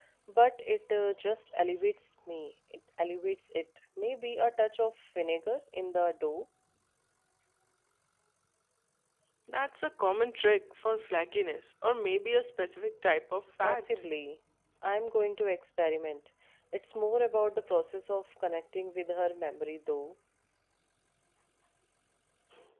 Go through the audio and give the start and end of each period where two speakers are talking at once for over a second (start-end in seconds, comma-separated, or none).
none